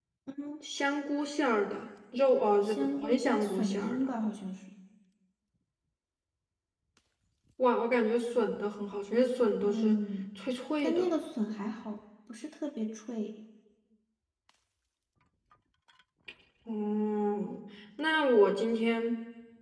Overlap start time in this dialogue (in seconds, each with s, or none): 2.6 s